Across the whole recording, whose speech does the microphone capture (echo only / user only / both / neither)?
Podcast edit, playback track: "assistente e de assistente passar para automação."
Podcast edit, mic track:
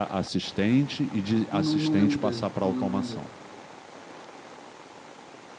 both